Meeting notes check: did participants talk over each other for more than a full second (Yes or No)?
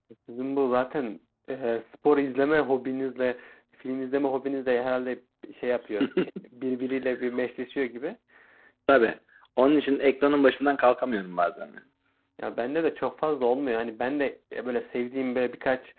No